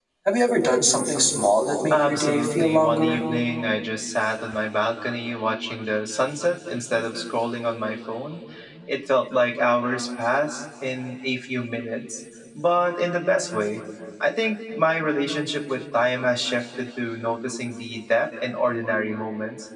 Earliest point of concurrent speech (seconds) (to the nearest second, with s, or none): 2 s